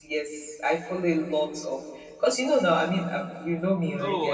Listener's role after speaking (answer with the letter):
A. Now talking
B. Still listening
A